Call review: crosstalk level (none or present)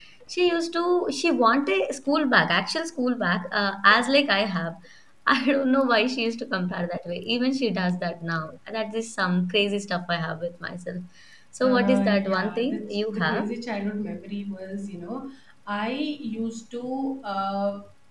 present